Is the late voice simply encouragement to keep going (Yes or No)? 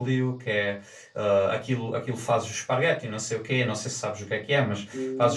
Yes